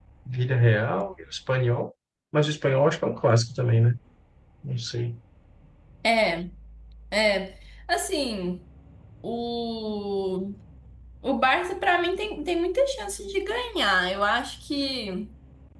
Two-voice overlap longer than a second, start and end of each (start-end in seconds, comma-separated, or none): none